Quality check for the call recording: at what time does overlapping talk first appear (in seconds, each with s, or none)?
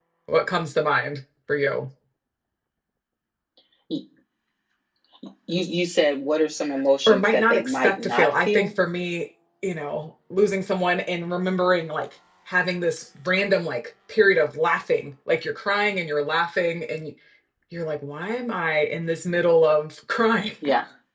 7.1 s